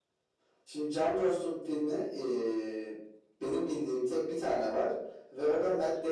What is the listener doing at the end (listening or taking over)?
listening